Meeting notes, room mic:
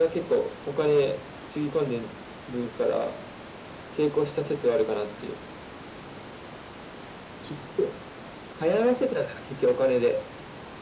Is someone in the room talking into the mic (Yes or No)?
No